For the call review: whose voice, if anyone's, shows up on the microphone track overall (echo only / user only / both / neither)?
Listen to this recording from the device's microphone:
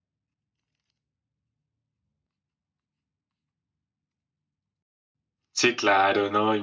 user only